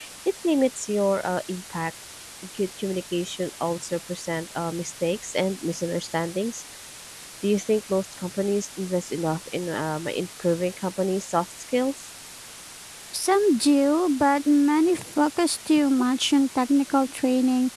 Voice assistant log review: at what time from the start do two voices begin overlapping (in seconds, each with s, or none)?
none